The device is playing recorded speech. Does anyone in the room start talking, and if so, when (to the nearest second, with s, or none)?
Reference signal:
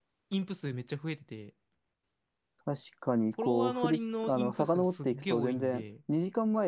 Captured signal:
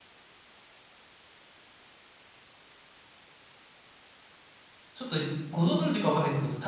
5 s